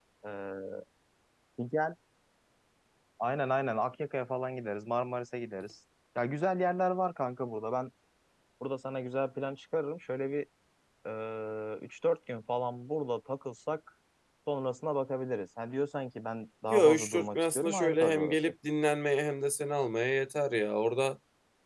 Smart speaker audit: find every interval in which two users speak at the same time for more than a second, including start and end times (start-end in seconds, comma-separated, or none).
16.7-18.4